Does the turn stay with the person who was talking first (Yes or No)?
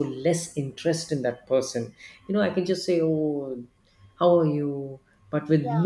Yes